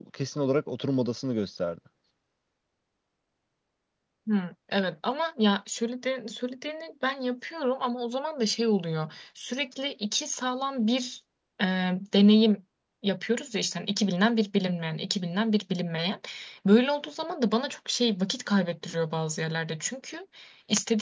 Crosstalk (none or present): none